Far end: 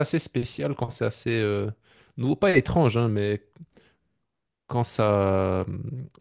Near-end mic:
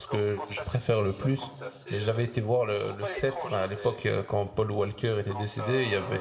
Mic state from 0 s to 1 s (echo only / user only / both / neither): both